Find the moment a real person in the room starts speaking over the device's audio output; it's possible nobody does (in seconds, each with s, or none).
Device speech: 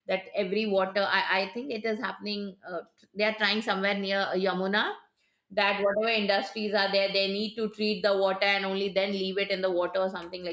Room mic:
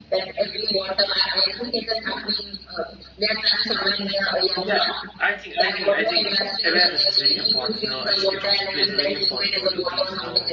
4.6 s